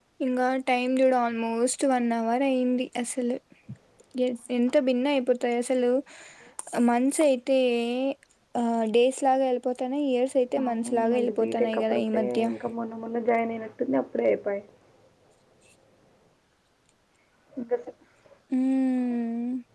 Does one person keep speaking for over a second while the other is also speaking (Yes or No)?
Yes